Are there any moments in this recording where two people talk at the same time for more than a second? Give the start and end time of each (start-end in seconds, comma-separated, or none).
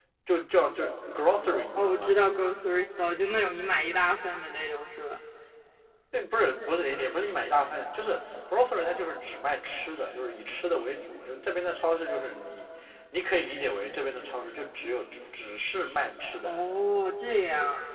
none